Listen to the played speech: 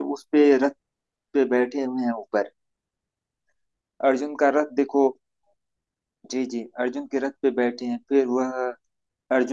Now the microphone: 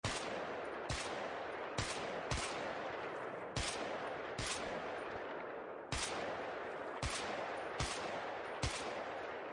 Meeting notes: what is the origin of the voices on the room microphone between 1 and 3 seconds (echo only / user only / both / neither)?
neither